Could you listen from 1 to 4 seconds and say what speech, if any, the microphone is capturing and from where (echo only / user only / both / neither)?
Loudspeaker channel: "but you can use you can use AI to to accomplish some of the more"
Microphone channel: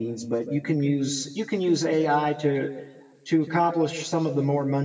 echo only